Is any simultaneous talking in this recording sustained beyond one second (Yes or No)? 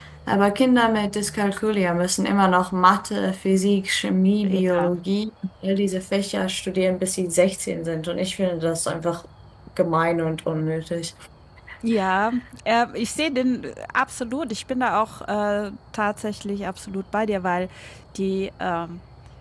No